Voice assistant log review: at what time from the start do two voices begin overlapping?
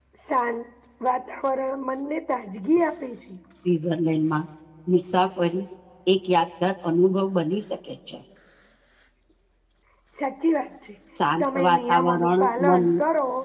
11 s

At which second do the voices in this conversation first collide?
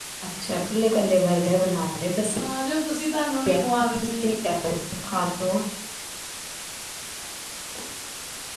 none

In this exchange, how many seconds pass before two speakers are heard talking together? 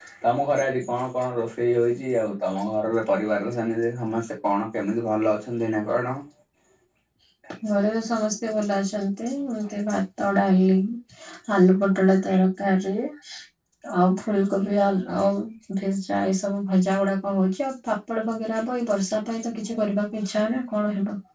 none

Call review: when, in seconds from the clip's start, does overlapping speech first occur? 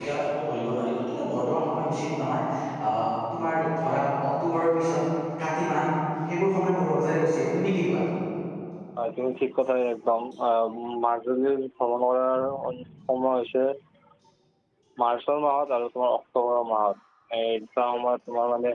none

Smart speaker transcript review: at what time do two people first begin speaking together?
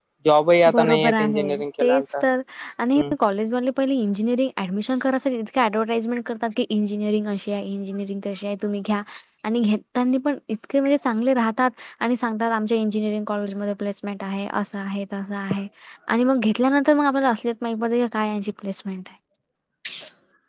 1 s

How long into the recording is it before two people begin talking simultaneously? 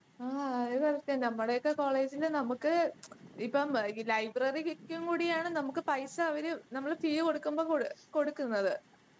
none

